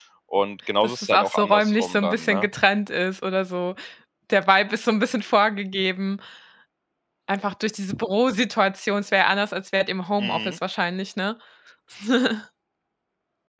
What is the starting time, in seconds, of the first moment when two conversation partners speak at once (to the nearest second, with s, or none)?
1 s